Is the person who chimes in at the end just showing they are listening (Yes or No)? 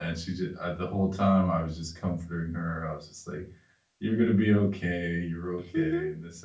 Yes